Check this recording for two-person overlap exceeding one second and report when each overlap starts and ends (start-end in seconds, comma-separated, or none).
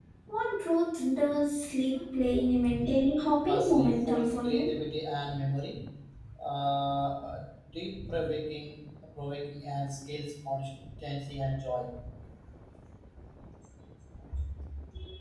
3.5-4.7